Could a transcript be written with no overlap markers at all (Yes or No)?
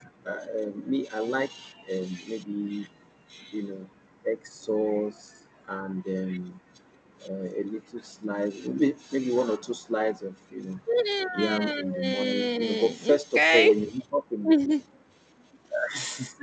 No